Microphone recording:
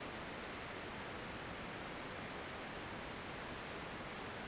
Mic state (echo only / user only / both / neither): neither